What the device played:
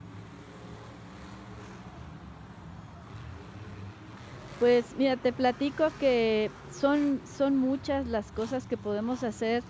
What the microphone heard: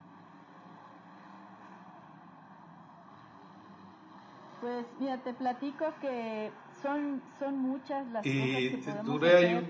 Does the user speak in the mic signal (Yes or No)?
Yes